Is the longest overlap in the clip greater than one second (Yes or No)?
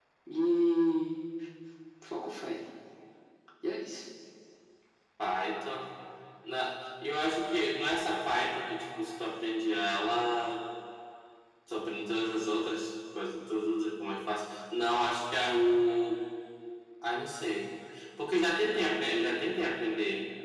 No